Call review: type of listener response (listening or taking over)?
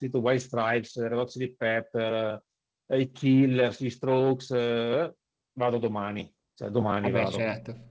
taking over